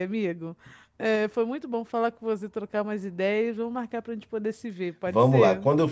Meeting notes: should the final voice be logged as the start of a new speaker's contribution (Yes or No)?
Yes